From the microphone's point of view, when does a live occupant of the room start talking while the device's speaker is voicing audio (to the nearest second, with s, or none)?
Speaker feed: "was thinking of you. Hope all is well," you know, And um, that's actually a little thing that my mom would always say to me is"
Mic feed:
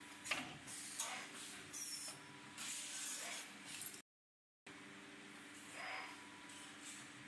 none